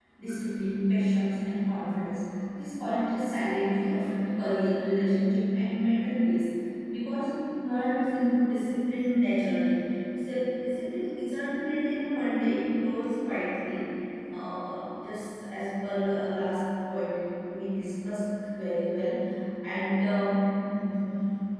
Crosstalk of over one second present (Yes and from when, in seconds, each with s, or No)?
No